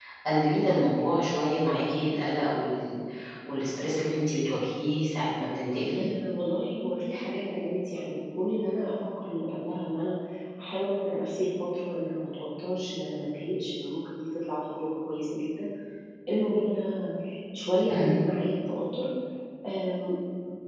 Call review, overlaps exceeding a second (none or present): none